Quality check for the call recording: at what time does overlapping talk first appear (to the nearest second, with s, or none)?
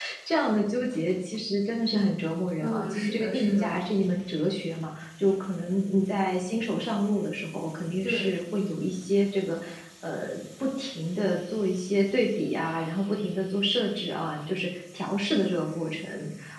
3 s